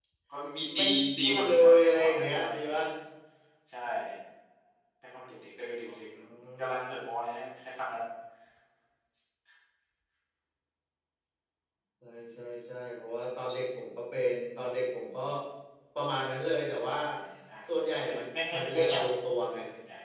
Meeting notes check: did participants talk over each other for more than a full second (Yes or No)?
Yes